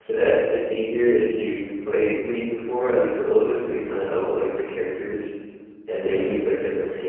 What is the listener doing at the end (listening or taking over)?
listening